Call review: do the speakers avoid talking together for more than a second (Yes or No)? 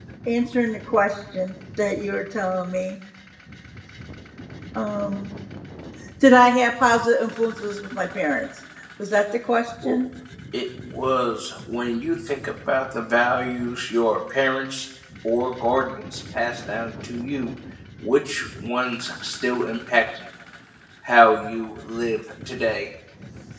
Yes